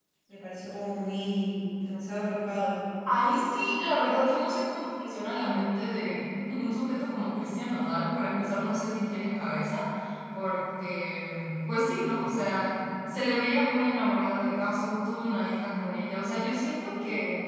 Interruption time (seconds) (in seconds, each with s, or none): none